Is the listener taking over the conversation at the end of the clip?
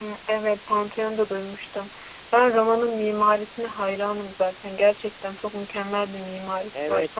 Yes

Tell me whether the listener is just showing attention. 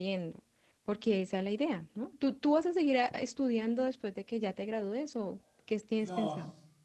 No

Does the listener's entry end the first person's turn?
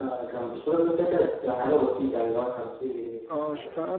Yes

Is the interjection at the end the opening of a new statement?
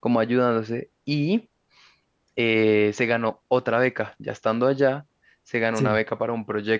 No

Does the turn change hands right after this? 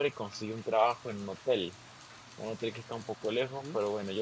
No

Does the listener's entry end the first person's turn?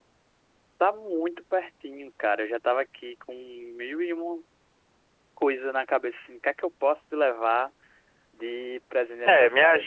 Yes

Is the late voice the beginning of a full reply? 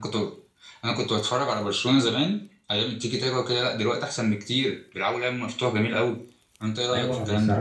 Yes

